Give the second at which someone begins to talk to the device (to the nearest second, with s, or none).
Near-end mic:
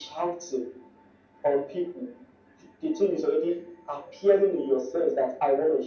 none